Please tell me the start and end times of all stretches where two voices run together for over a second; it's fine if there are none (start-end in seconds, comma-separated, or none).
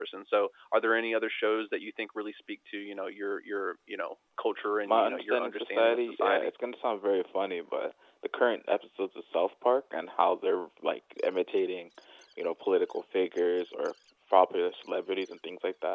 4.8-6.5